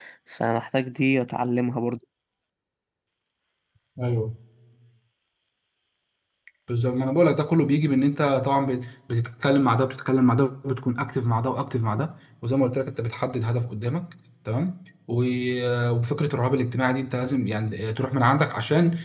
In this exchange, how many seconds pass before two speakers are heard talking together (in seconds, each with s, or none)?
none